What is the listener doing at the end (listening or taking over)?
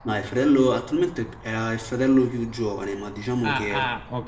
taking over